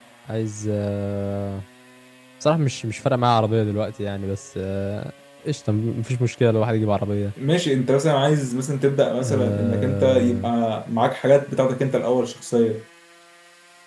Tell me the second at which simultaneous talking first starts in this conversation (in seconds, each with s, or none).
9.2 s